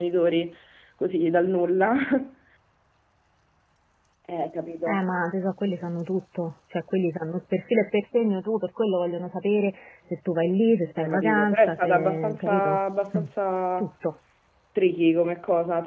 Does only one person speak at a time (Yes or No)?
No